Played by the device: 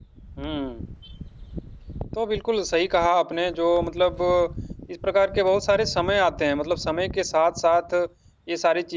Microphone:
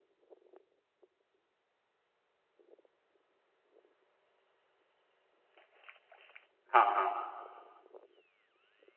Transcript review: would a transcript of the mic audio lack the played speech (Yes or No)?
Yes